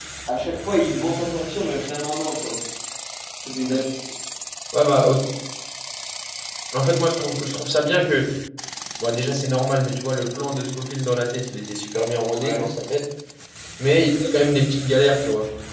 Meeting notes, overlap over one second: none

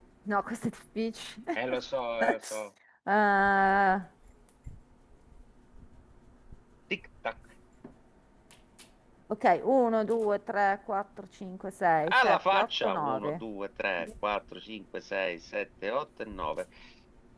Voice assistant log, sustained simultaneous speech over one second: present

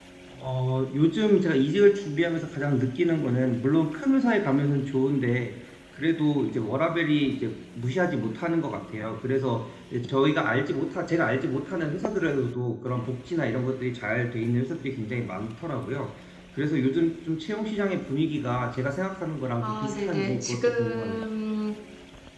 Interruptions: present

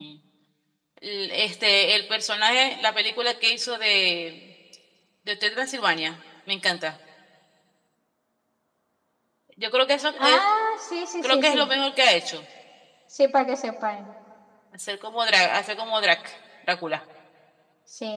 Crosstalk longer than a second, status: none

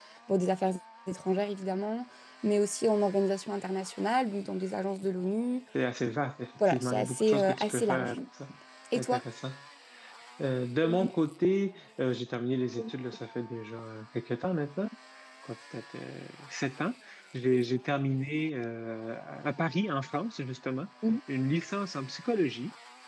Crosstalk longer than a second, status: present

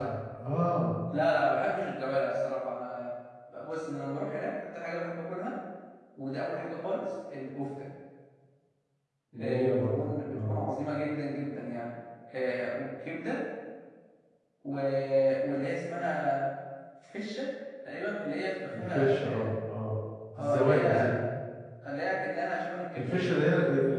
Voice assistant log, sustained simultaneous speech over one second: present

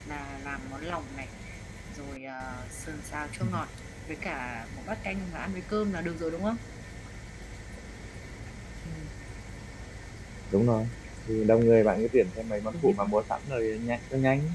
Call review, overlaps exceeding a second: none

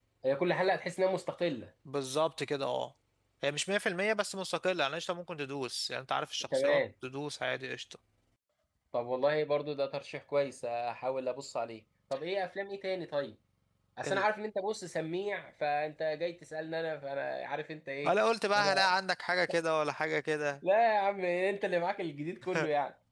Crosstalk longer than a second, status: none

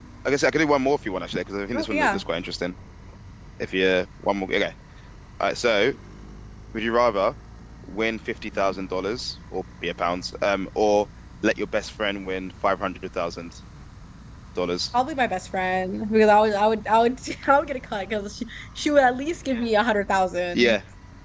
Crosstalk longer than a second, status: none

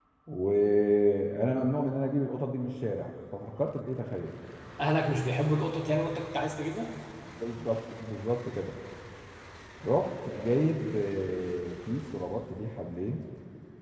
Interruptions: none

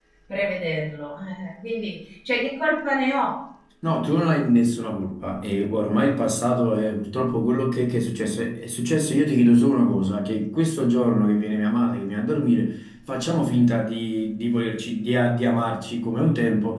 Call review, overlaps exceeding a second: none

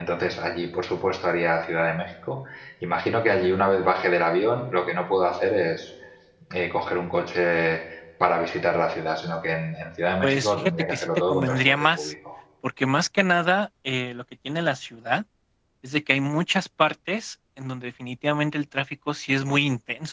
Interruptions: present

